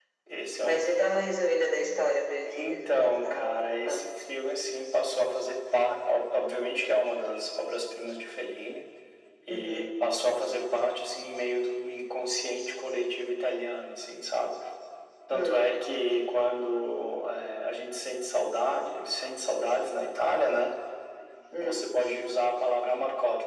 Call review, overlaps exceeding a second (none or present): present